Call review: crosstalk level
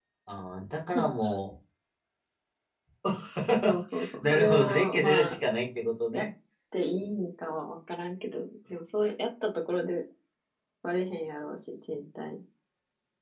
present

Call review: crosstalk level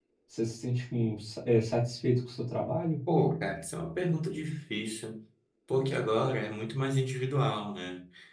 none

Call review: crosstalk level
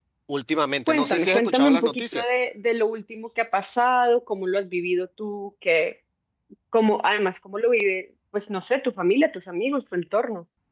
present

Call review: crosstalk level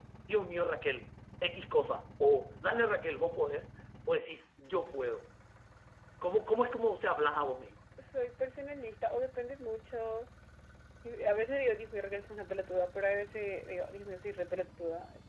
none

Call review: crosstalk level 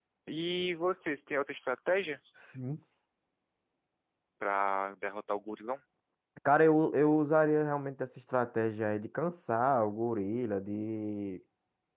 none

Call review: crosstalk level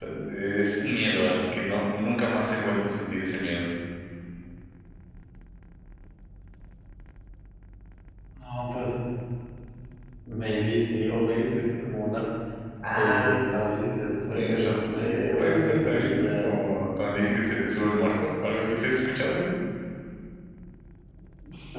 present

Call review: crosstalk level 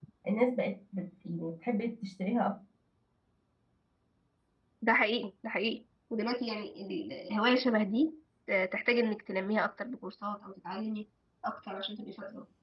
none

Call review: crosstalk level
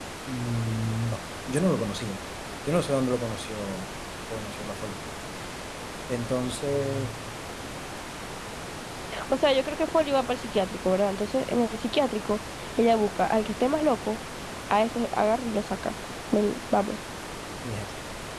none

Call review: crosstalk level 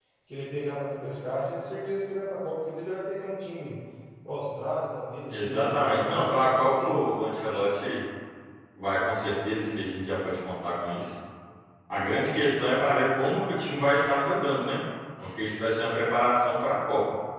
present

